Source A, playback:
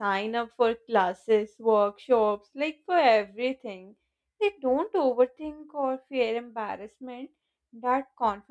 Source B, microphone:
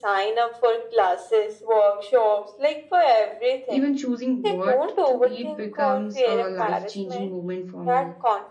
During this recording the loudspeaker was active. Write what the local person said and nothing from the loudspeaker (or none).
Even choosing what to eat becomes a life changing moment for me.